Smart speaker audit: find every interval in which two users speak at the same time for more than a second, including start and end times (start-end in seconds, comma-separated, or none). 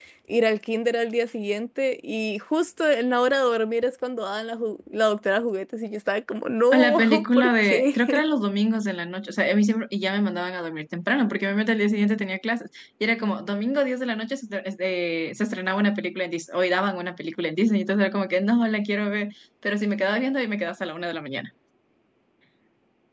6.7-8.2